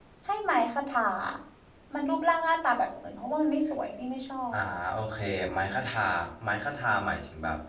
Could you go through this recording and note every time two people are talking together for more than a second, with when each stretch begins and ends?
none

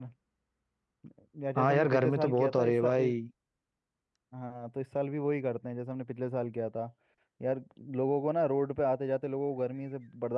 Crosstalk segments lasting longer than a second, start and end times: 1.6-3.1

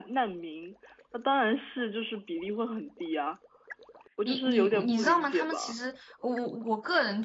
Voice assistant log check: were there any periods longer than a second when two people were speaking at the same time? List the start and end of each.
4.2-5.8

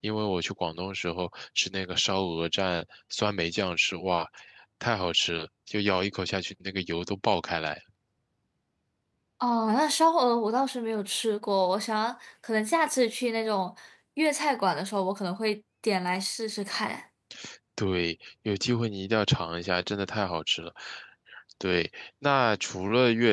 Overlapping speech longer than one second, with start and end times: none

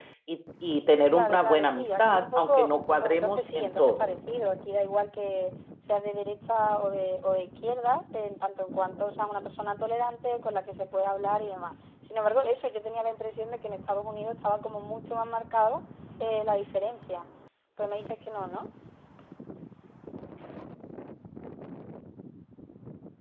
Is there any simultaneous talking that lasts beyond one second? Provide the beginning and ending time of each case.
1.1-4.1

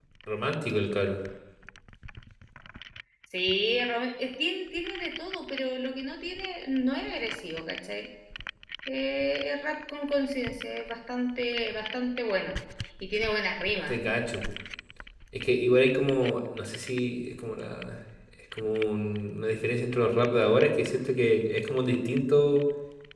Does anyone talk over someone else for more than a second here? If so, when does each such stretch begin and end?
none

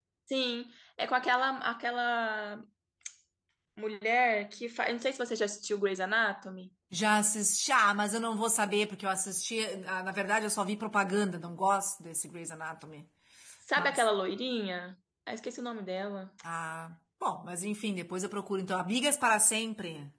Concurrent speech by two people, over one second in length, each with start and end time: none

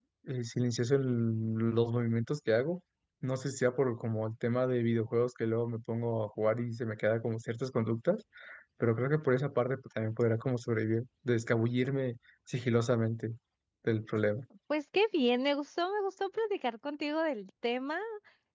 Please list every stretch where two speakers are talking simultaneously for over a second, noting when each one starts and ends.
none

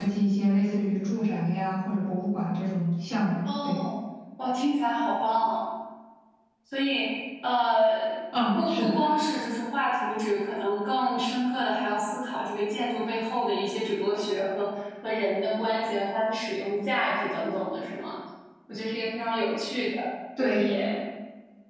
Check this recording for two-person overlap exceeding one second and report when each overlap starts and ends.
none

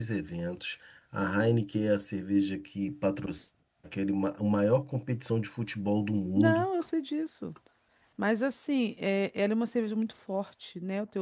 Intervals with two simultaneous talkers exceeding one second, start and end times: none

